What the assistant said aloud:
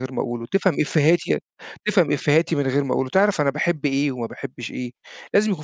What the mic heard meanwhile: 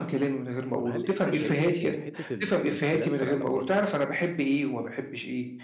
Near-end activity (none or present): present